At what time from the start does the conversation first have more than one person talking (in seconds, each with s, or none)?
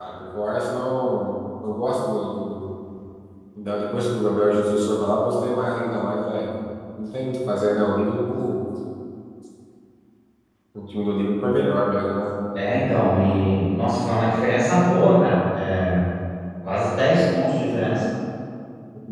none